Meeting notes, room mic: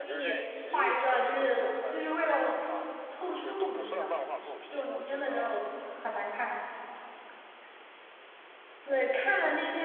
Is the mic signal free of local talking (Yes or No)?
No